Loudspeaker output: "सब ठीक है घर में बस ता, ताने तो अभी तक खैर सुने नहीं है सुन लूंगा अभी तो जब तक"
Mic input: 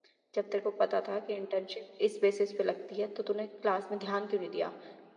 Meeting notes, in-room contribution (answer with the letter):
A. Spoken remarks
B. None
A